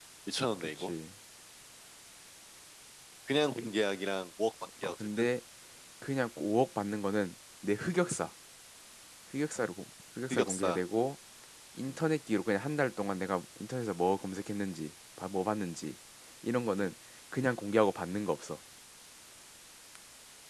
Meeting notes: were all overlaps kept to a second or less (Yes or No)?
Yes